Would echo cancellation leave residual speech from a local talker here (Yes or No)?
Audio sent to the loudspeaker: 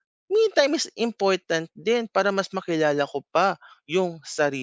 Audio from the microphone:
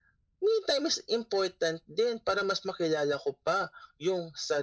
No